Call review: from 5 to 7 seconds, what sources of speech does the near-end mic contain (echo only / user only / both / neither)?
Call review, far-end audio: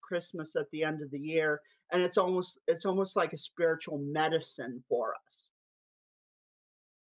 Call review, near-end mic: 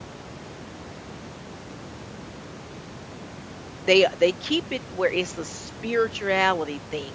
user only